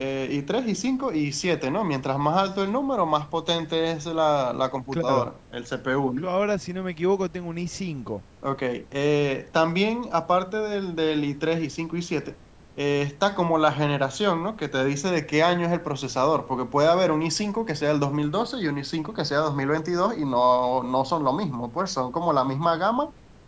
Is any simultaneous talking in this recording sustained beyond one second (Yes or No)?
No